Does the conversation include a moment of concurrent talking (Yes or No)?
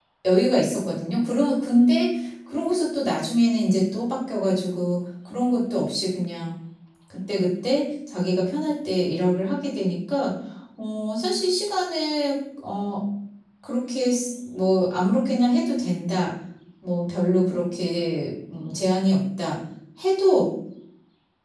No